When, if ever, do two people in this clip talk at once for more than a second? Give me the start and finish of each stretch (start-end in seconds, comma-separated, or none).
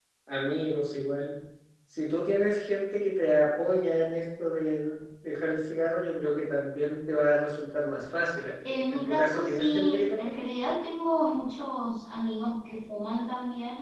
8.7-10.4